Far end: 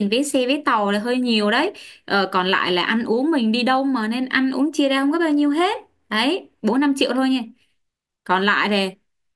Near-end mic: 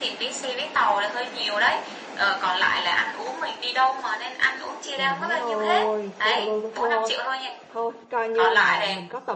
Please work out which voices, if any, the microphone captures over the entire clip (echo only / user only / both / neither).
both